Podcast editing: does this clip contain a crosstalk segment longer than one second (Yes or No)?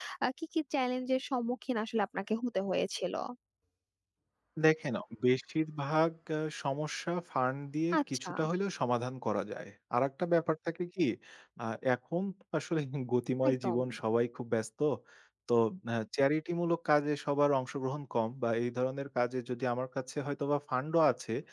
No